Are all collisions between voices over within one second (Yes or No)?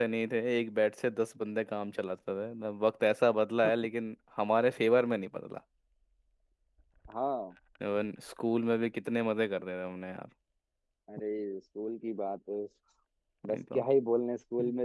Yes